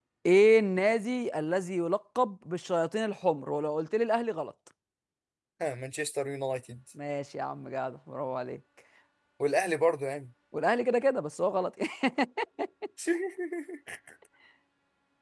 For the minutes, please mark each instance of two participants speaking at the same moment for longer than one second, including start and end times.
none

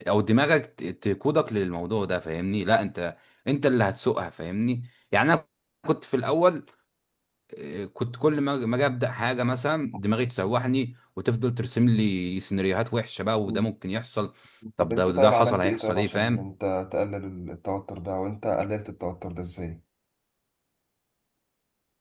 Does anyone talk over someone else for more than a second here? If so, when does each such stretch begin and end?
14.8-16.5

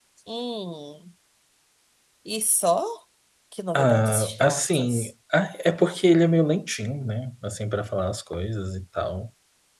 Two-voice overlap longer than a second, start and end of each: 3.7-5.1

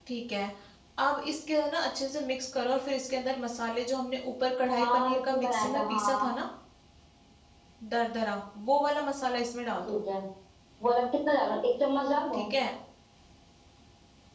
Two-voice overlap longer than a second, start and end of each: 4.8-6.4

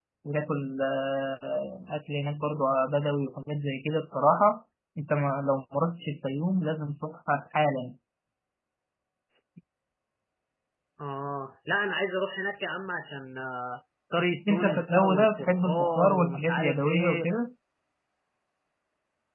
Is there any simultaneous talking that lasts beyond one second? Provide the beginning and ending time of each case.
14.5-17.3

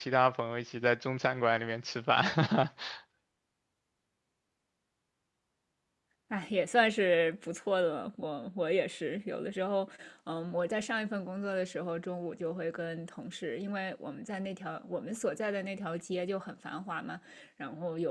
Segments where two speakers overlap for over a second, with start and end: none

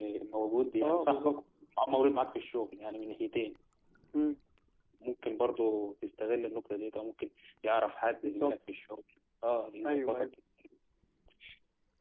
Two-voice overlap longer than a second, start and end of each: none

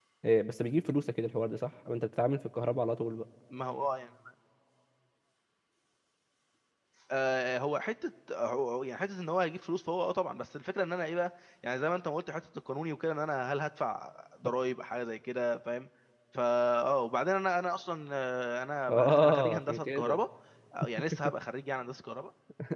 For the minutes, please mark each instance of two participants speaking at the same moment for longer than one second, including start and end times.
18.9-20.2

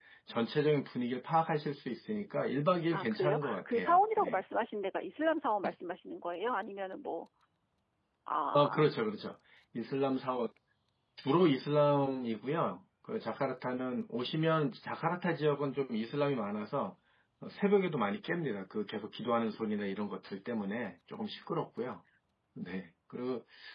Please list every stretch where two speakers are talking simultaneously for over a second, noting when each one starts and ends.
2.9-4.4

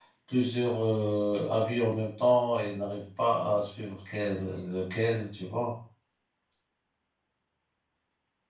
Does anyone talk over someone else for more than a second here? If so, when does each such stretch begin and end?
none

